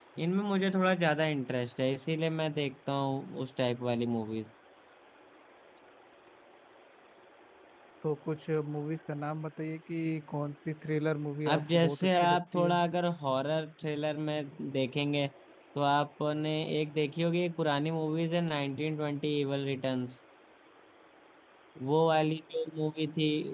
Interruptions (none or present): present